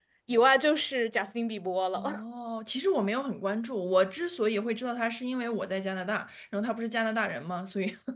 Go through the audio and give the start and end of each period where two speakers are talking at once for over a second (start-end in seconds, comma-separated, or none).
none